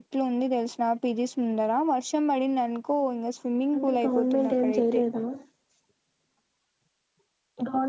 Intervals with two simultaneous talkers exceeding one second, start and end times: 3.8-5.0

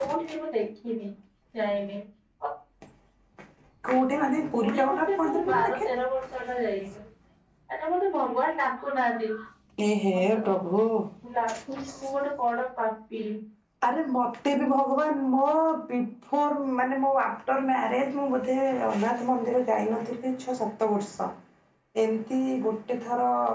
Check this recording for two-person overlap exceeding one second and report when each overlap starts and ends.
4.5-5.9

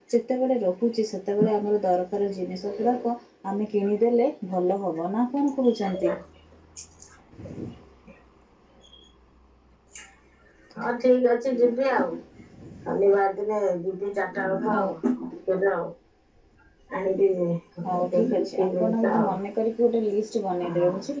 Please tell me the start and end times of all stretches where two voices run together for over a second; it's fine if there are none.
17.9-19.3

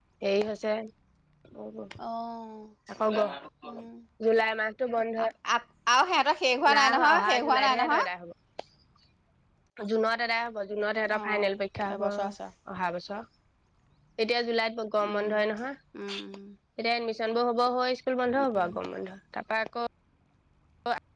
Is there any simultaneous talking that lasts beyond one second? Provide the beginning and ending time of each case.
6.7-8.1

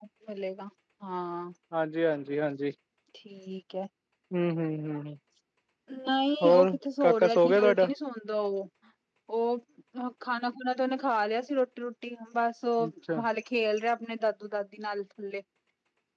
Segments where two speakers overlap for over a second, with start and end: 6.4-7.9

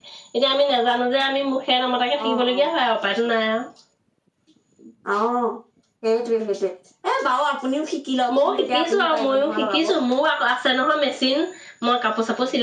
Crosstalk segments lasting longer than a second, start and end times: 8.3-9.9

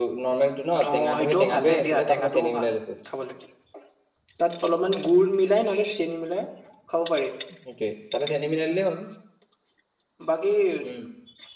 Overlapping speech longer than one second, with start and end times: 0.9-2.7

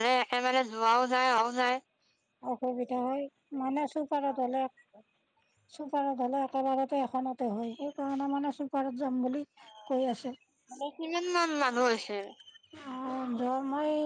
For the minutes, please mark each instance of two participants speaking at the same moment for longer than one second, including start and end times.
none

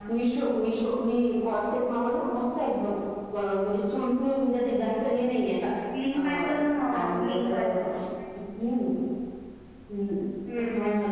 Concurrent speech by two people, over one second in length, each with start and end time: 6.1-7.6

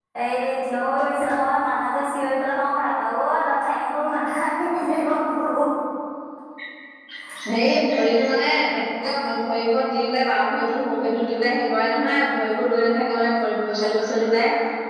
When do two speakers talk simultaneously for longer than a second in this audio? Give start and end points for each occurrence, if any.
none

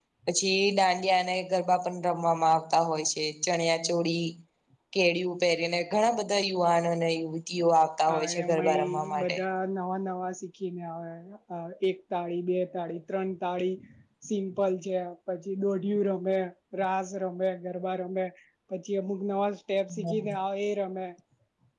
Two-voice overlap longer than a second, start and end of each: 8.1-9.4

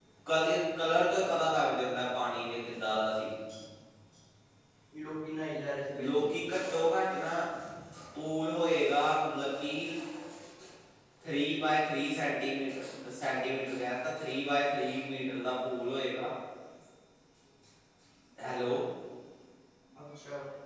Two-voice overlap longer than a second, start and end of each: none

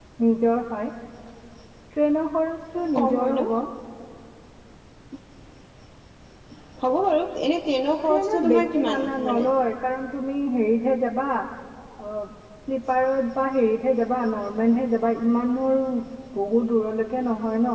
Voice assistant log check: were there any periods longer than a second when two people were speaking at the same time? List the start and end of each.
8.1-9.5

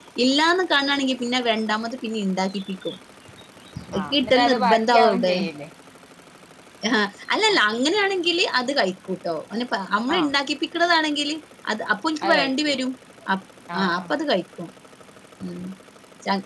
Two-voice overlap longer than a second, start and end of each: 4.0-5.3

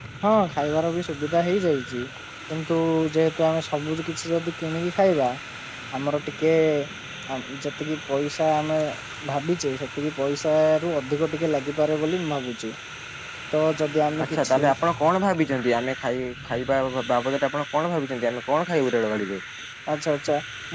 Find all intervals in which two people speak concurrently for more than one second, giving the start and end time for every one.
none

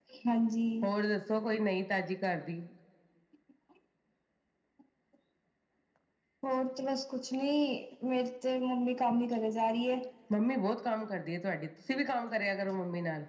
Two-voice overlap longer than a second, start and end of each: none

